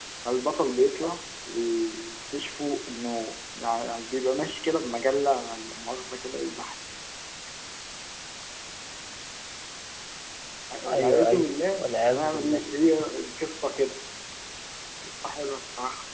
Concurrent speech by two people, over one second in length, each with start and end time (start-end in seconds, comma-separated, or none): 10.9-12.6